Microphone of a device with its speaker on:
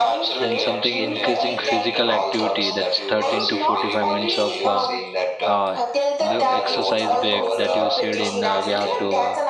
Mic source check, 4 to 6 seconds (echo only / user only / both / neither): both